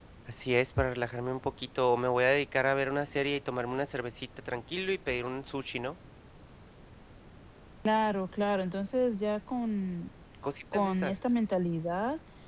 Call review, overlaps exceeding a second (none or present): none